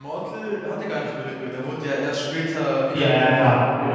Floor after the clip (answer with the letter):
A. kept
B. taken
B